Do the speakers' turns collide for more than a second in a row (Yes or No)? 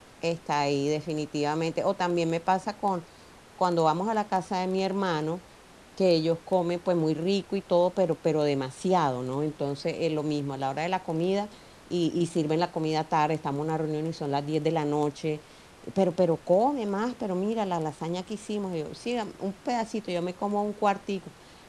No